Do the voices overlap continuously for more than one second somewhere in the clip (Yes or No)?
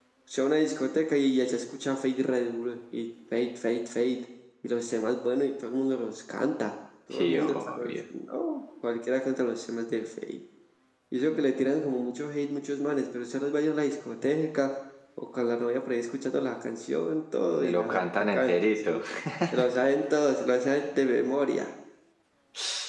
Yes